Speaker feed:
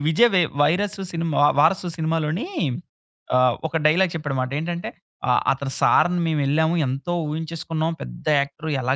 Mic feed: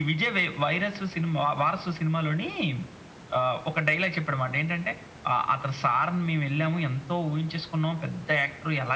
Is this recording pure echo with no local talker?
Yes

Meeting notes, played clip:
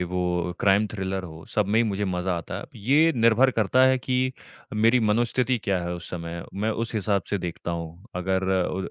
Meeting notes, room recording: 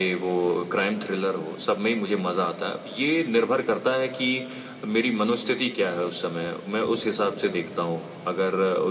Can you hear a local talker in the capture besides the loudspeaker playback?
No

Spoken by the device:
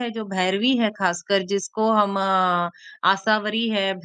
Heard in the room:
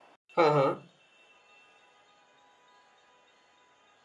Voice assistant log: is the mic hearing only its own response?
No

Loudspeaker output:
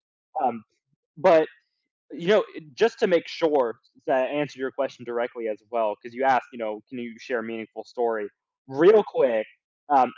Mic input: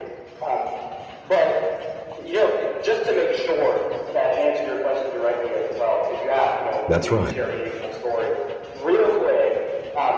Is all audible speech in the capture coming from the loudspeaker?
No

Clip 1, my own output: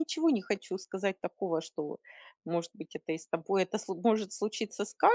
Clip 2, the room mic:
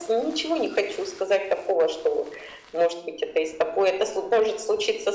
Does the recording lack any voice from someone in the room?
Yes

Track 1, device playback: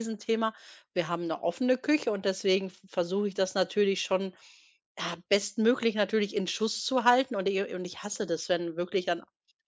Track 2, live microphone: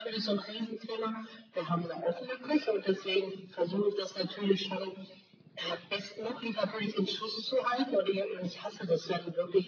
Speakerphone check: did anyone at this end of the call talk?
No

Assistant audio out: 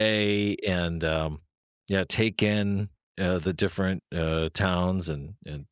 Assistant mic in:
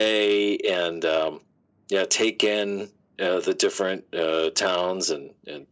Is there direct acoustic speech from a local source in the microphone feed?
No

